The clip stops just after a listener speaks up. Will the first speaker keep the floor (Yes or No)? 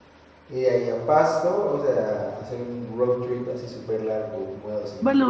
No